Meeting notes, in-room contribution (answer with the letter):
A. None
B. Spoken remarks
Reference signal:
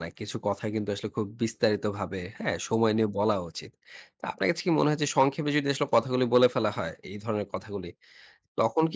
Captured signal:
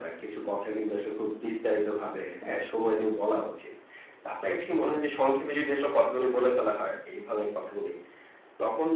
A